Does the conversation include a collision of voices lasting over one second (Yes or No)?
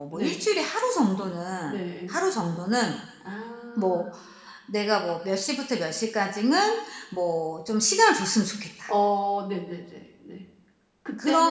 No